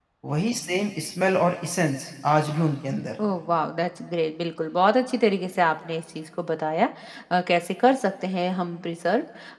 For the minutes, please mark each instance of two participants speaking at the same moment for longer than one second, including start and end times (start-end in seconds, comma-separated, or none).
none